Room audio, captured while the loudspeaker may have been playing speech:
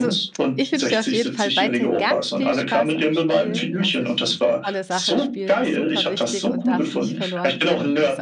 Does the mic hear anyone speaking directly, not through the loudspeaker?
Yes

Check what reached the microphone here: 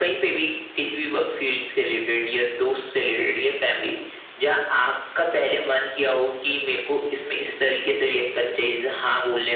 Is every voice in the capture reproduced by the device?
Yes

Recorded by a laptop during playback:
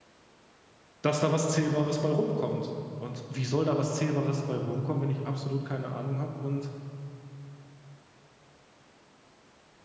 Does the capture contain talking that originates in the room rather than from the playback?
Yes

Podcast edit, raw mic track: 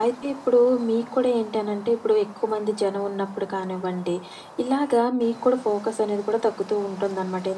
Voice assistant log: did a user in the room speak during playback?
Yes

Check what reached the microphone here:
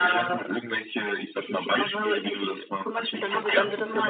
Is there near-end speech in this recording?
Yes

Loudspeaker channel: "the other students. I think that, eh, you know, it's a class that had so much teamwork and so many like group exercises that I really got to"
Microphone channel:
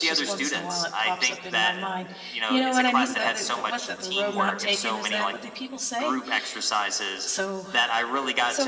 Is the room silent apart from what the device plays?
No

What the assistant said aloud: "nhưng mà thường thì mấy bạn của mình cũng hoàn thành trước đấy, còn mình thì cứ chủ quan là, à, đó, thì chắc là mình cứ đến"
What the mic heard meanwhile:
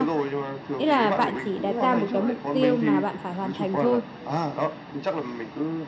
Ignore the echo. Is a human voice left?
Yes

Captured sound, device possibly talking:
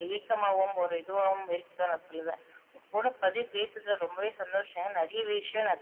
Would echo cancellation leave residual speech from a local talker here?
No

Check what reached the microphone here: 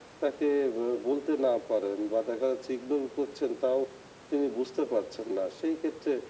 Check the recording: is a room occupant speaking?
No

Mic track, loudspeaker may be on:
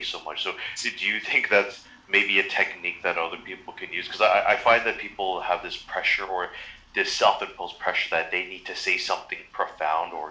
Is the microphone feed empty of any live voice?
Yes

